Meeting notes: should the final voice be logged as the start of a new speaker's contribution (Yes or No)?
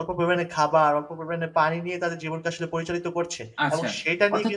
Yes